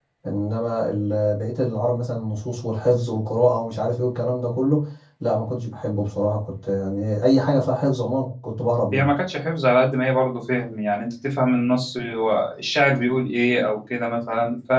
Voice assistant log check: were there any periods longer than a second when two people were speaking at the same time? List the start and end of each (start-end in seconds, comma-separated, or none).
none